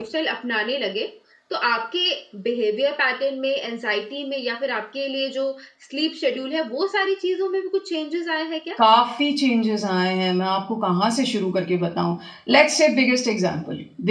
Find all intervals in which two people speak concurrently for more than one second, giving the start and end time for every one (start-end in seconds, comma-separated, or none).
none